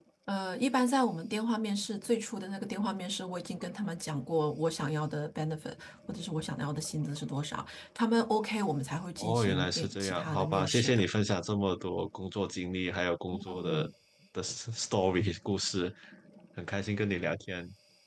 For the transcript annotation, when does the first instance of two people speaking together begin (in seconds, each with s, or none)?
9.2 s